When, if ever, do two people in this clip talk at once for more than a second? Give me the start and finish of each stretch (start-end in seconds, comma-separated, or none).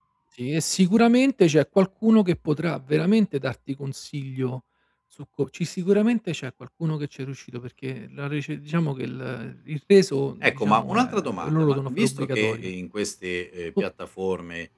10.4-12.7